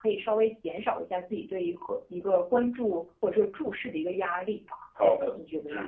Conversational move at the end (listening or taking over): taking over